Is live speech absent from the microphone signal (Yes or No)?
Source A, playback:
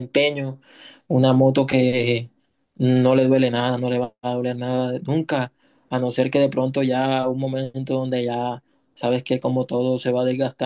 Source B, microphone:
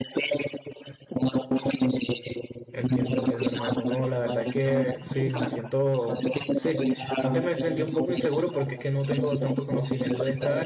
No